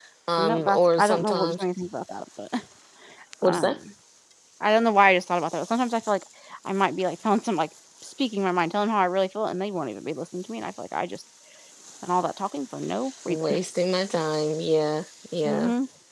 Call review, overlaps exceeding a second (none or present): present